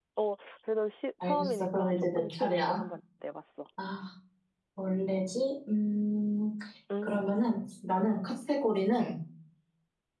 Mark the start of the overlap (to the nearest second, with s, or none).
1 s